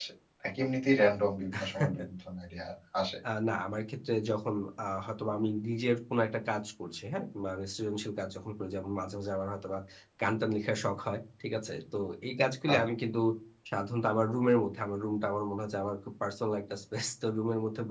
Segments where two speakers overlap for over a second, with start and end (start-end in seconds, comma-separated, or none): none